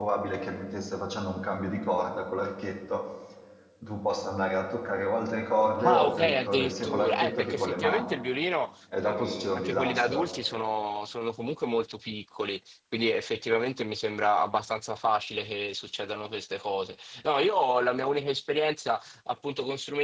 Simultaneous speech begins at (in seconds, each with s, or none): 5.8 s